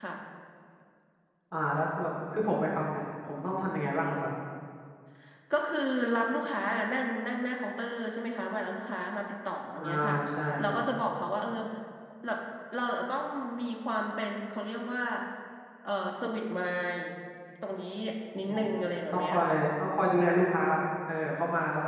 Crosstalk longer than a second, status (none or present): none